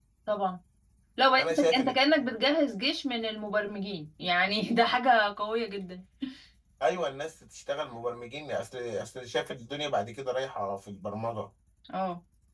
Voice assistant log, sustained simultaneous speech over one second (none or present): none